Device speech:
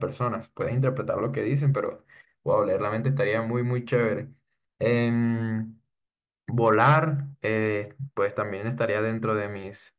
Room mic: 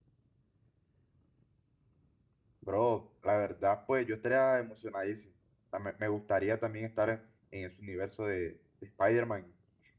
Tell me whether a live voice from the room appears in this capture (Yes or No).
Yes